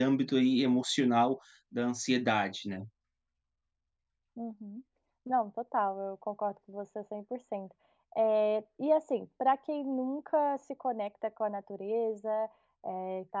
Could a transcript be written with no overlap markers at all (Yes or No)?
Yes